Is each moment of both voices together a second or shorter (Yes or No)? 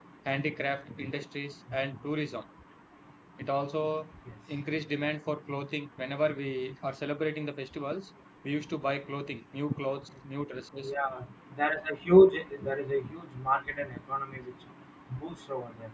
Yes